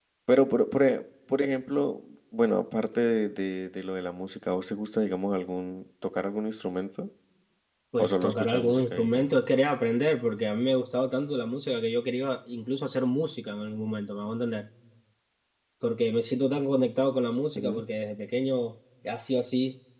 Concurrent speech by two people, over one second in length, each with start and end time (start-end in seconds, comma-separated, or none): 8.0-9.2